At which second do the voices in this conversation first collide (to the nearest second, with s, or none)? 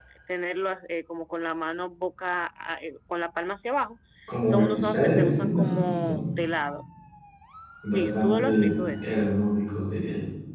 4 s